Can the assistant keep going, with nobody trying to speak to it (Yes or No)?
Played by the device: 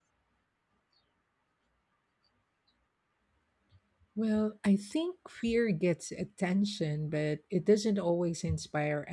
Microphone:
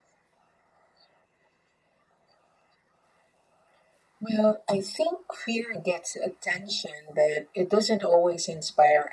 Yes